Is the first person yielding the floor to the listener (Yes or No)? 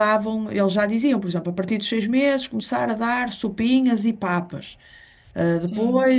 No